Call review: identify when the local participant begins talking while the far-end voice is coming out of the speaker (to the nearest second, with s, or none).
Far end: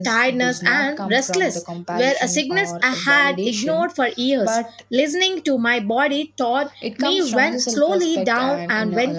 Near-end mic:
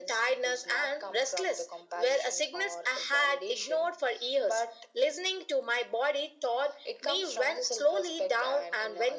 none